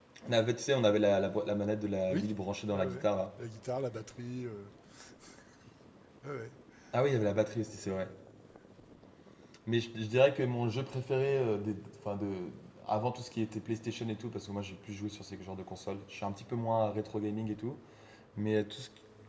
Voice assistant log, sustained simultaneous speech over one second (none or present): none